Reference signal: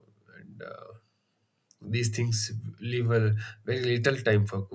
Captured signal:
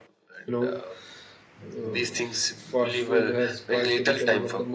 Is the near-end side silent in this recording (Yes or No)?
No